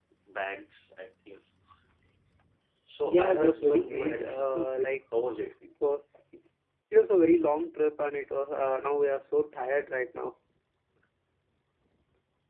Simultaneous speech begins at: 3.0 s

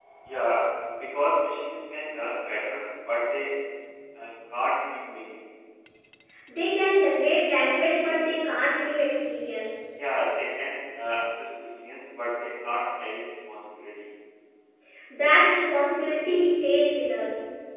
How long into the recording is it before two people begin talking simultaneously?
none

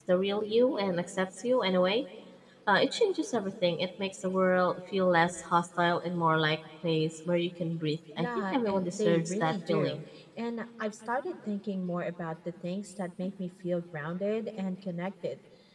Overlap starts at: 8.2 s

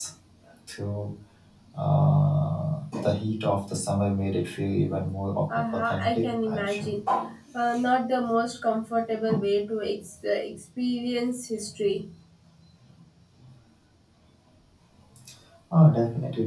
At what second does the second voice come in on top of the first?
5.5 s

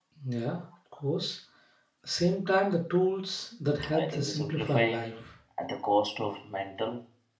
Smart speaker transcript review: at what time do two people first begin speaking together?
3.9 s

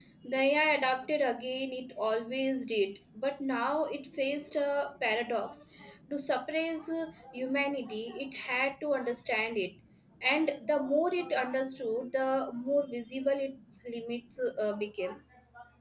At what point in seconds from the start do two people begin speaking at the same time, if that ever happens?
none

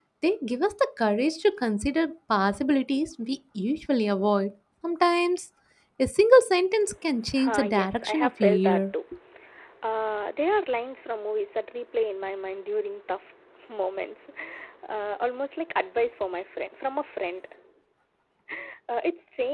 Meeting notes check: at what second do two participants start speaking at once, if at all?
7.3 s

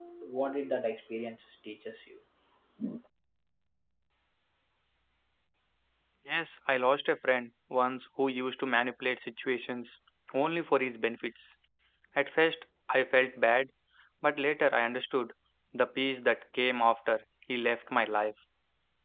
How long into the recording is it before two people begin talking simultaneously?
none

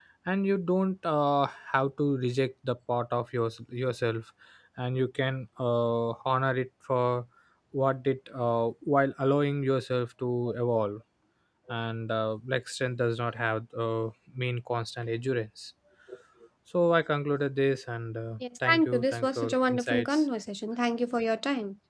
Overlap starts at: 18.6 s

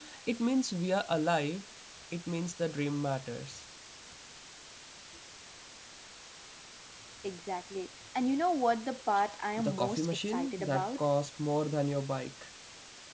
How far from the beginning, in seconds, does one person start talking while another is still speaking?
9.6 s

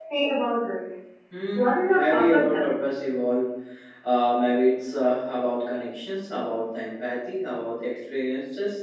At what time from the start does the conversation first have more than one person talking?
1.5 s

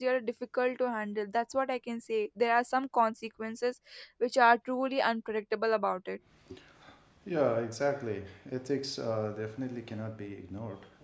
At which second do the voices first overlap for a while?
none

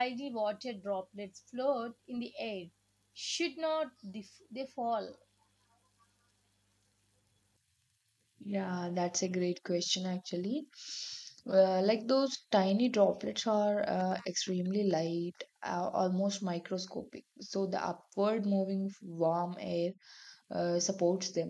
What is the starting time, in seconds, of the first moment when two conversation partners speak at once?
none

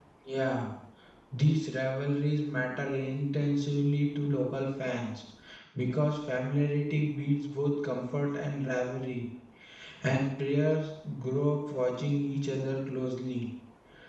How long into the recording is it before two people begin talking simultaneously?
none

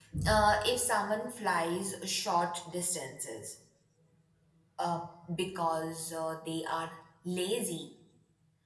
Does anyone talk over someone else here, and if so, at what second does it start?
none

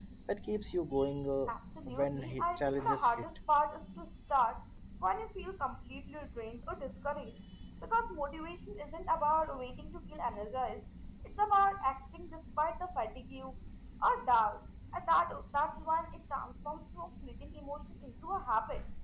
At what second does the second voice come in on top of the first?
1.9 s

